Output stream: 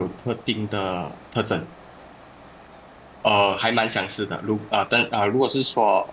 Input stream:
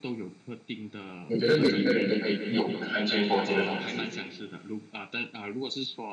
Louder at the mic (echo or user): user